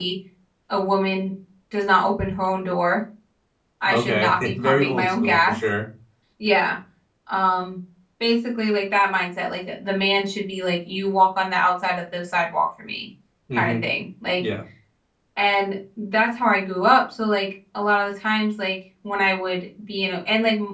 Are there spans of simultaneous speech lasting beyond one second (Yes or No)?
Yes